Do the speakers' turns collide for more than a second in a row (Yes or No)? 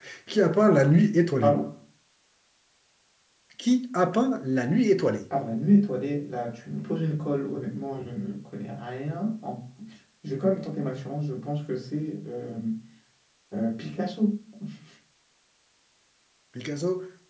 No